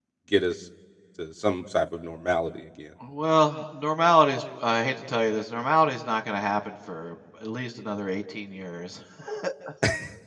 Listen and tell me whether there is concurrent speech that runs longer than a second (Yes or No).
No